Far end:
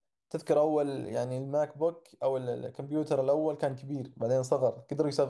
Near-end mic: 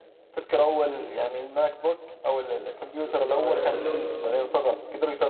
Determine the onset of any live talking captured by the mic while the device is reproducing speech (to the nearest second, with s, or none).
3 s